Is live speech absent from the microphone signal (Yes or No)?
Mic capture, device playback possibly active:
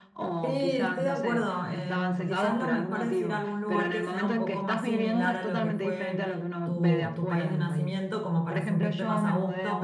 No